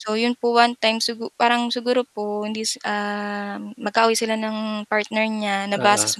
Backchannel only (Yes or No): Yes